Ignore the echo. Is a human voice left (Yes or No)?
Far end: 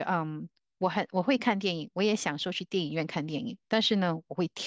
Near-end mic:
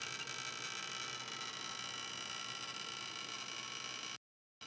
No